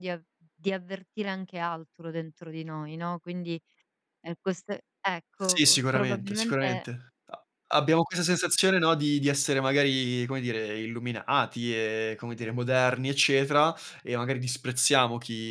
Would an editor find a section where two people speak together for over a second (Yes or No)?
Yes